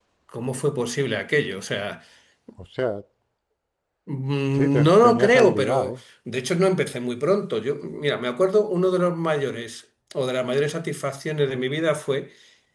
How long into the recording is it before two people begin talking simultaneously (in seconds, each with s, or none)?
4.6 s